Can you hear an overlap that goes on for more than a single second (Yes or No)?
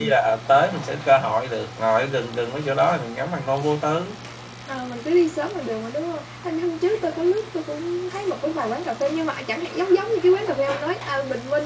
No